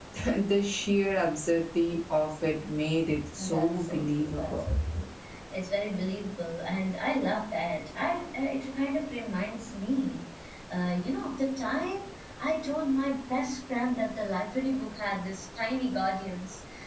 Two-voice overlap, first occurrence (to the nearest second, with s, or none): 3 s